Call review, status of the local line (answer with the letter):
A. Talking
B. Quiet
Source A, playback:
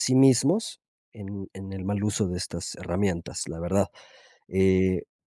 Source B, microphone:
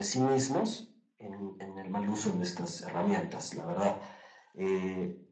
B